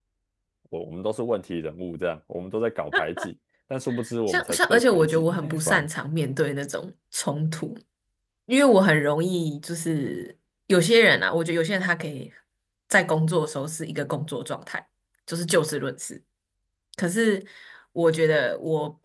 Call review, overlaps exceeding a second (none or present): present